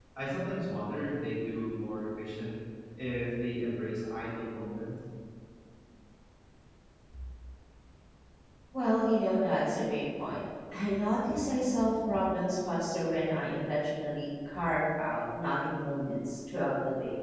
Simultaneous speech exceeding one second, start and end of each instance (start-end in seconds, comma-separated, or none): none